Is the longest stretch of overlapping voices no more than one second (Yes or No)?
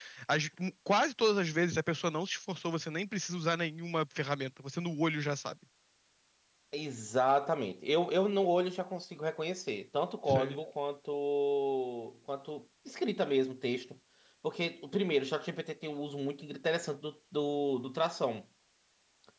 Yes